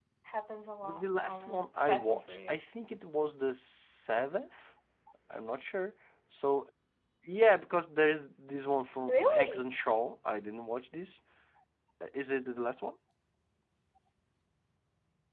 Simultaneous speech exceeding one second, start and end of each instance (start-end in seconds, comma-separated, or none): 0.8-2.6